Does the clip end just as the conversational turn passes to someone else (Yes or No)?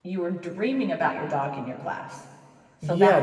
Yes